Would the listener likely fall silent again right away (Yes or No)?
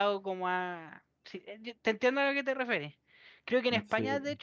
Yes